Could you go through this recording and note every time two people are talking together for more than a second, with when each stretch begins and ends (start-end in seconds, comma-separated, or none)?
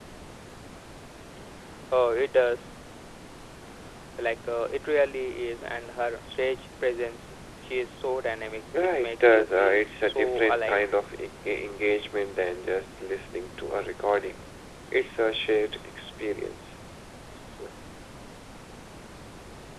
8.7-10.8